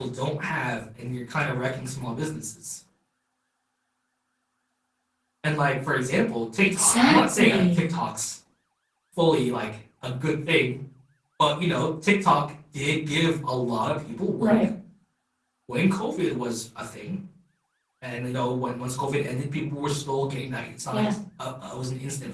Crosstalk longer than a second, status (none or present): present